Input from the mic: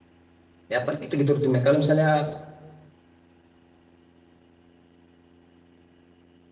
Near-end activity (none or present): present